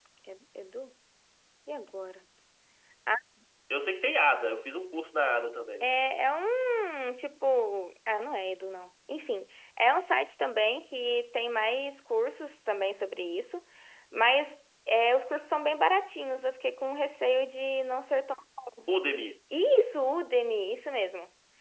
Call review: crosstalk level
none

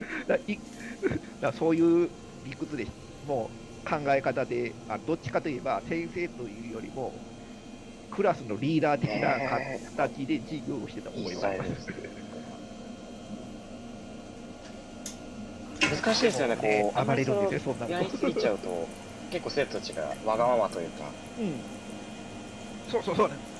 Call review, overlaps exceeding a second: present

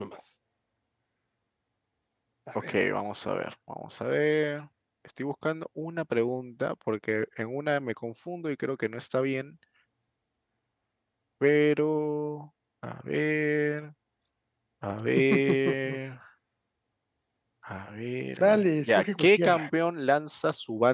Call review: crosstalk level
present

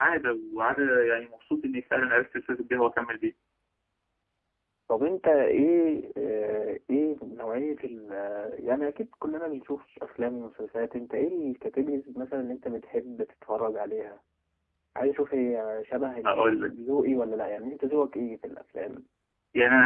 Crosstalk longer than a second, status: none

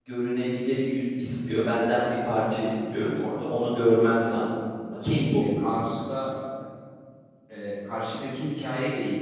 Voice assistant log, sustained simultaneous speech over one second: none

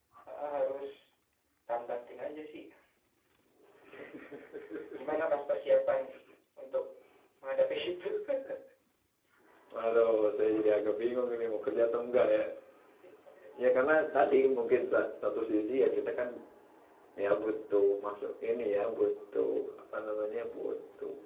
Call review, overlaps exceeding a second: none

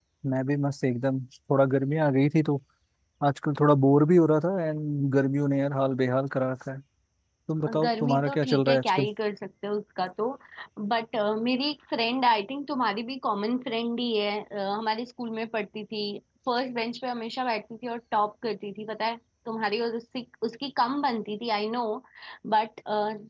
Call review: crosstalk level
present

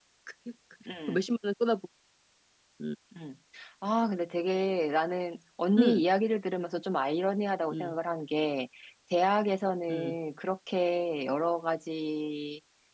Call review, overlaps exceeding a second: none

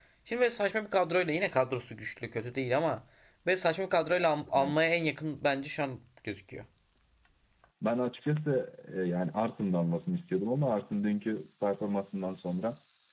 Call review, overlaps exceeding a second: none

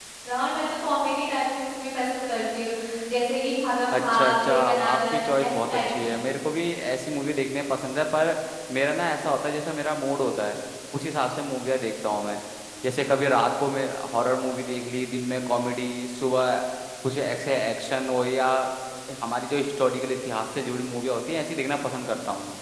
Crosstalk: present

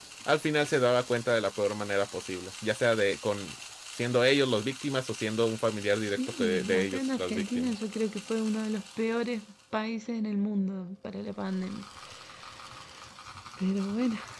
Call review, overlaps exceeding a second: present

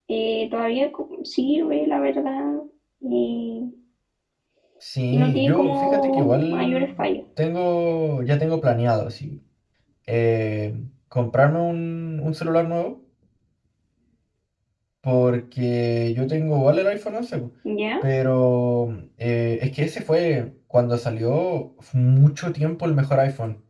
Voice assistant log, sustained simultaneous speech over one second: present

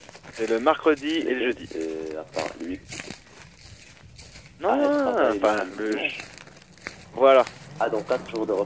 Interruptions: present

